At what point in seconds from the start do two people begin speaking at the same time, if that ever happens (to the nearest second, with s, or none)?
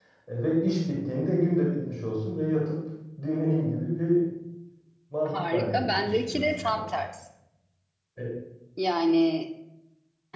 5 s